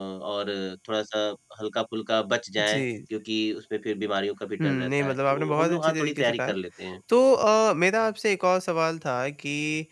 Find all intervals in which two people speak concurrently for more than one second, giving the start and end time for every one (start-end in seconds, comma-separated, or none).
4.6-6.5